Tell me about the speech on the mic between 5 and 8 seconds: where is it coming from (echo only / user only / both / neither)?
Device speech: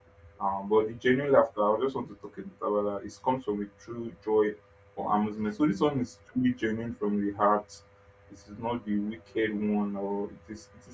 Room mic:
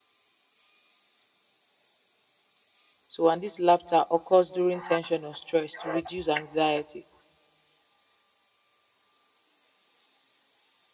user only